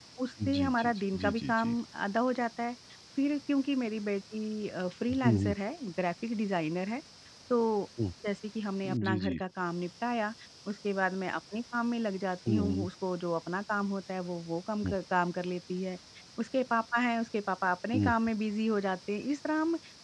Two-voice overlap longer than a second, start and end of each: 0.5-1.8

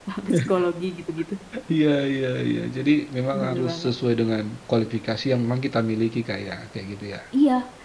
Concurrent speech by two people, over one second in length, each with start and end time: none

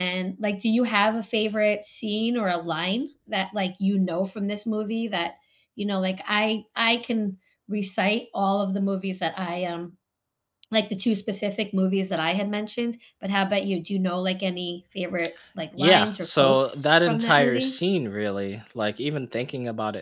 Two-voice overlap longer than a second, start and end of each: 15.8-17.8

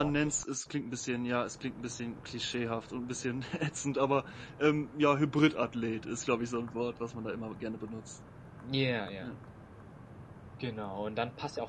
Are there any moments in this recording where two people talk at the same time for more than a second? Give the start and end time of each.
none

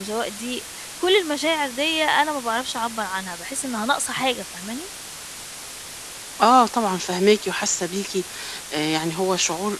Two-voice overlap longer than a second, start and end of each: none

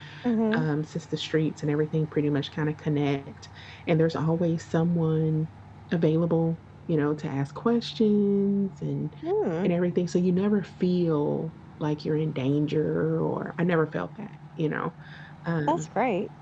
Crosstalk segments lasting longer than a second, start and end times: none

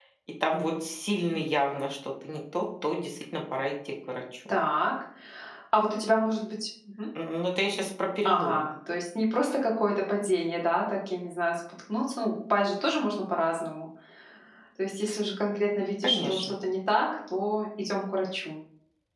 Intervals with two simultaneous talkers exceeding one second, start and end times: none

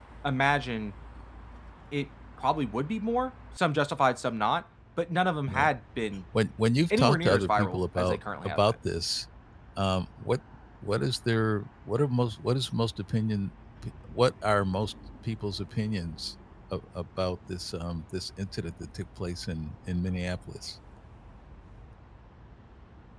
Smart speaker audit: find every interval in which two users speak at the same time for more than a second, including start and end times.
6.9-8.6

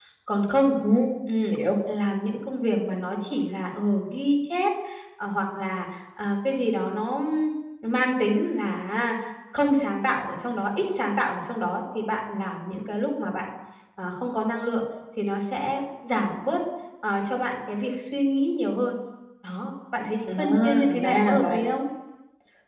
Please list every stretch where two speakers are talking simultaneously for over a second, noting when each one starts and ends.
20.4-21.6

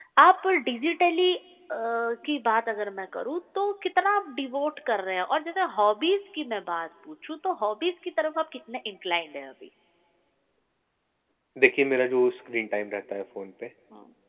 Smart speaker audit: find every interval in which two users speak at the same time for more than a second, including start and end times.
none

